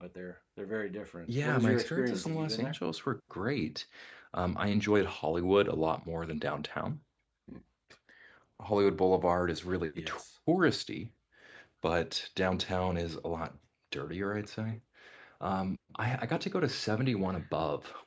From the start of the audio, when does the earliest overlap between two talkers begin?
1 s

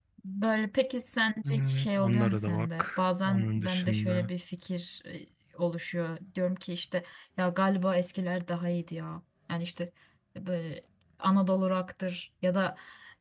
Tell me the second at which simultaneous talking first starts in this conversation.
1 s

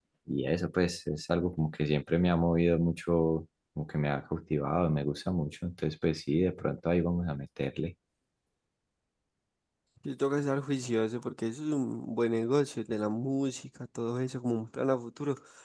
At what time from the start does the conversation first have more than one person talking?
none

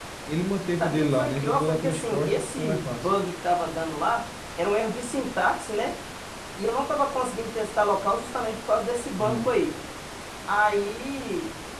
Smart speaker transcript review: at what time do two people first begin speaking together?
1 s

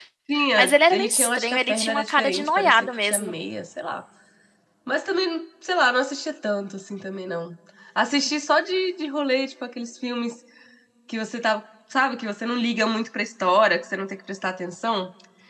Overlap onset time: 1 s

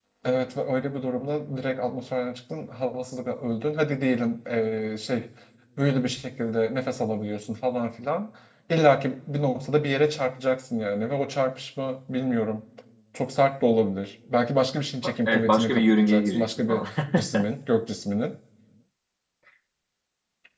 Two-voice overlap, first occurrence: 15 s

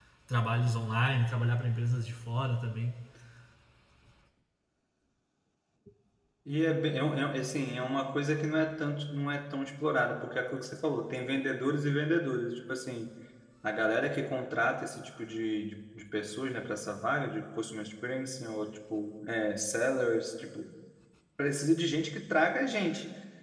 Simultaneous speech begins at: none

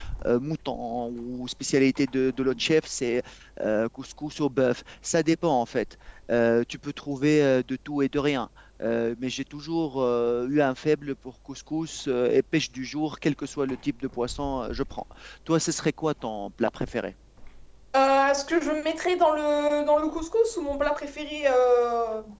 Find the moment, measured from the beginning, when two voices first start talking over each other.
none

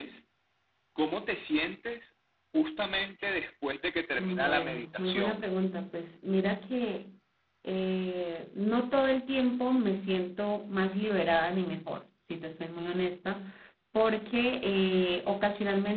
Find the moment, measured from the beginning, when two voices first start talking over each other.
4 s

